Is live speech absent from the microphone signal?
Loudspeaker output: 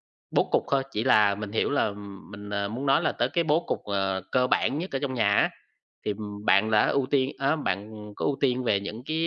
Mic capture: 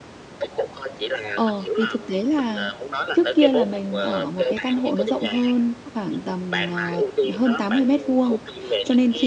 No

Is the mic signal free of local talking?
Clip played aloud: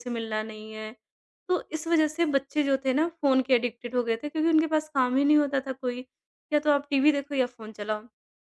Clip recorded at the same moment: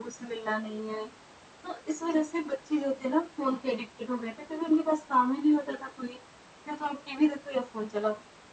Yes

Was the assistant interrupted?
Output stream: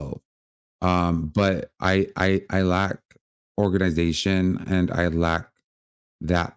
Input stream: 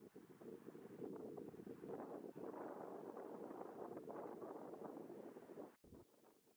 No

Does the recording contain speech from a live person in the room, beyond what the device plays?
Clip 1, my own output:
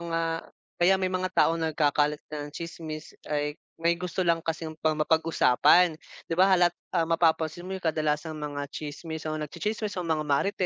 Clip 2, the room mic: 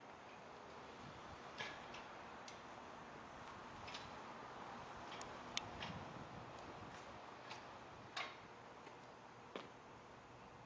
No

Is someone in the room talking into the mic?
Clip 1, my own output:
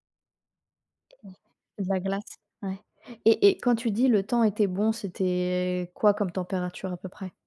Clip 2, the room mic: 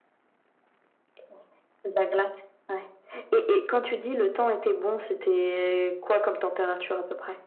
No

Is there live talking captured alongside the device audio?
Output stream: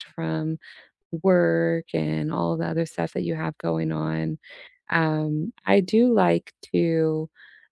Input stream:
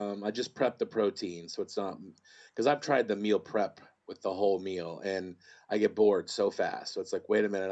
Yes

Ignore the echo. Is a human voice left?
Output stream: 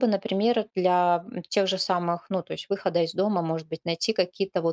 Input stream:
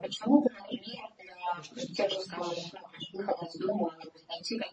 Yes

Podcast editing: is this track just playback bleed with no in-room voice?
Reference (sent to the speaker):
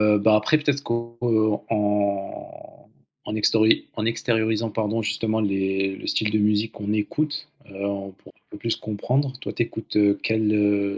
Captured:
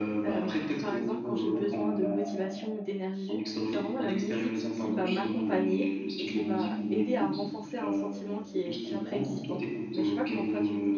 No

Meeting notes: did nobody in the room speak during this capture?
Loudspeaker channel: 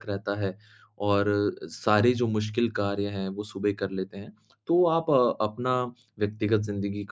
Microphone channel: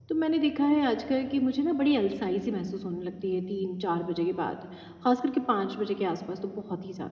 No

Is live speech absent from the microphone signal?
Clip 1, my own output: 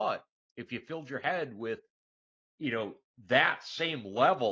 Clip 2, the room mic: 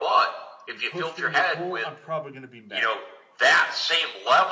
No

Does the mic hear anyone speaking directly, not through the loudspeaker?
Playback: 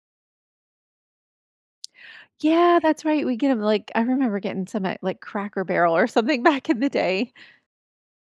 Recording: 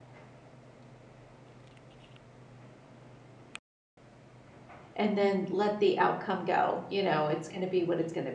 Yes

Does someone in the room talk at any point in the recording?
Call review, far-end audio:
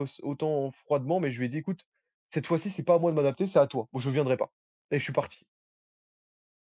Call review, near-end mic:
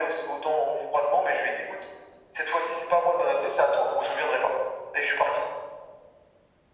No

